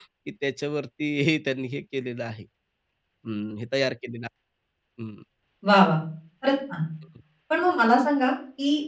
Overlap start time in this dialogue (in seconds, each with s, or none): none